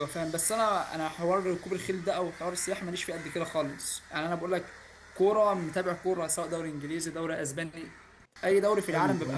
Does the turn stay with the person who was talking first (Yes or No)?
No